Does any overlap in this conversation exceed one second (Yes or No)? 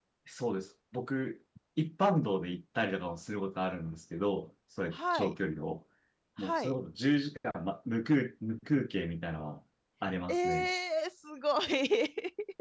No